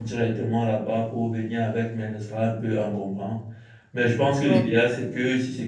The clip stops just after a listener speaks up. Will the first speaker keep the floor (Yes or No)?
Yes